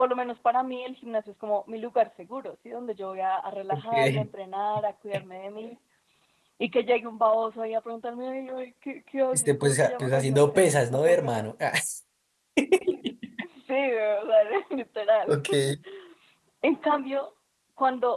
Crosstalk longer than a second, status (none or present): present